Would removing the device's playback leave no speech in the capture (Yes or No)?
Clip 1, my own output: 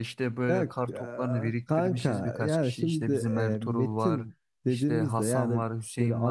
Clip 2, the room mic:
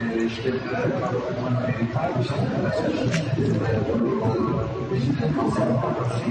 Yes